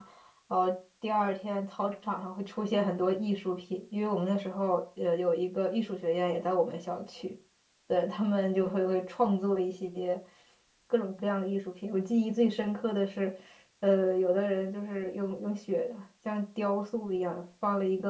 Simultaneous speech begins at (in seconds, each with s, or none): none